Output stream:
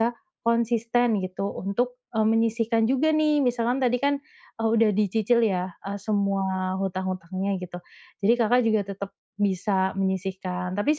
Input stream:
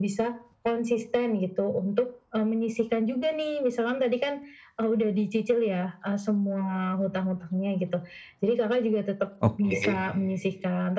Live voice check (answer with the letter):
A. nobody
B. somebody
B